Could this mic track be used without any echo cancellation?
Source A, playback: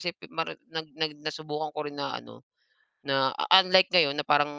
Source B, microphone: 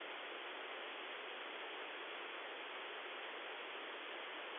Yes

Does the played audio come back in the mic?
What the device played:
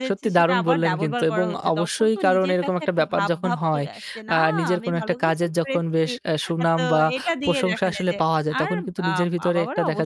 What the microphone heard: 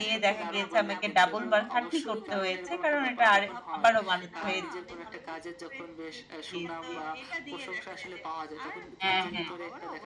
Yes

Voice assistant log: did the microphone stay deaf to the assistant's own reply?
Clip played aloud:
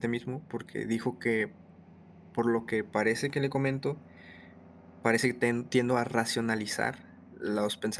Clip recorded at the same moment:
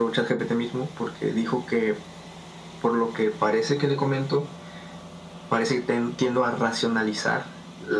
No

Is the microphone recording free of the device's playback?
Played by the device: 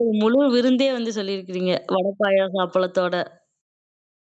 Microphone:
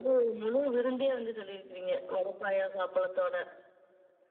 No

